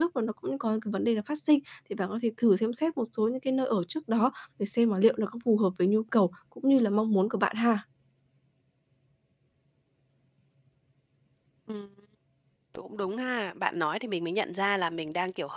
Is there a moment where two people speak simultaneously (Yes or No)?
No